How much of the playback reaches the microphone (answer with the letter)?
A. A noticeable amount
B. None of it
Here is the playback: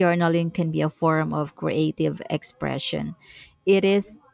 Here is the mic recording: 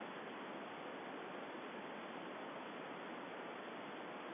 B